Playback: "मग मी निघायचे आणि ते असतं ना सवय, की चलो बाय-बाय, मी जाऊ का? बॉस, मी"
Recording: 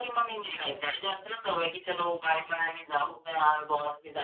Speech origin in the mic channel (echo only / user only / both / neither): echo only